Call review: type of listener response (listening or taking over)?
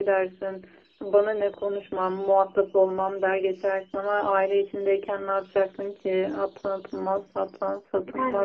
taking over